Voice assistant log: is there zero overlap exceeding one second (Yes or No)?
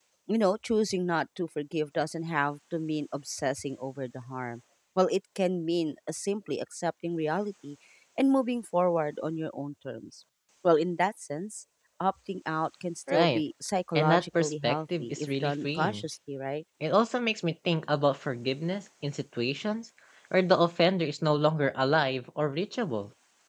No